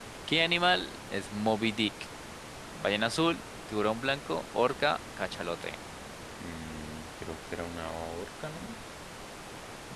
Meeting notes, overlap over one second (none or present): none